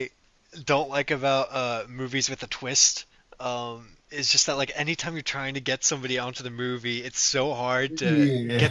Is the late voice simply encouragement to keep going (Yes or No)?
Yes